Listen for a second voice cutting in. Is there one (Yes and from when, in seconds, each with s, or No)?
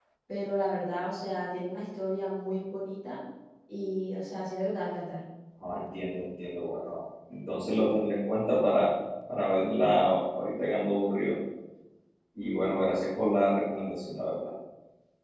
No